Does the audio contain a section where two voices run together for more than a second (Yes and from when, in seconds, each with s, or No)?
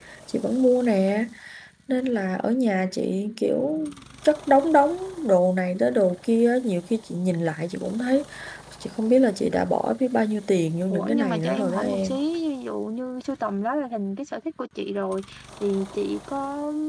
Yes, from 10.9 s